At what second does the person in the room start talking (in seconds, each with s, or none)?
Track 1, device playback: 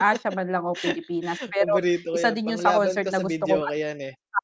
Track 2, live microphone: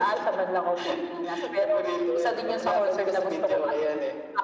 none